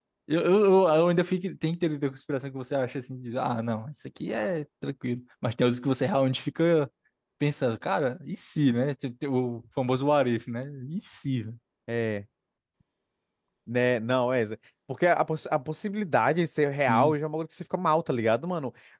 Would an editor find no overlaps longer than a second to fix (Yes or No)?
Yes